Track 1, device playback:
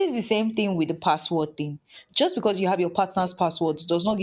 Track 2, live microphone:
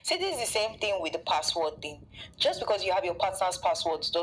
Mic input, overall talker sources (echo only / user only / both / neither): echo only